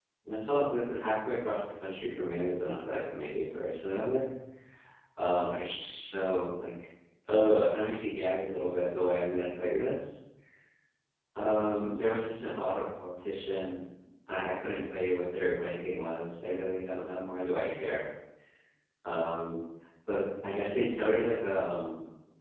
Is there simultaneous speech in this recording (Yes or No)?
No